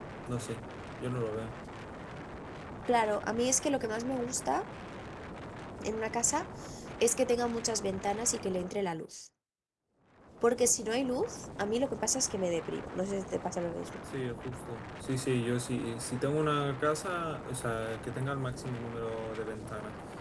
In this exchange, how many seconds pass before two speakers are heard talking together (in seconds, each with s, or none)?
none